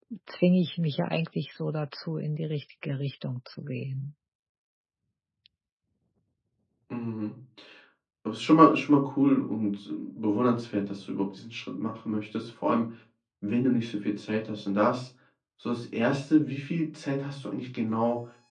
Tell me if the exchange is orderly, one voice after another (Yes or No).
Yes